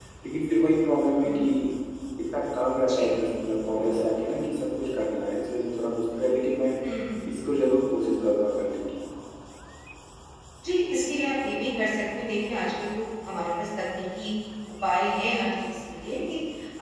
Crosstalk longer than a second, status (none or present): none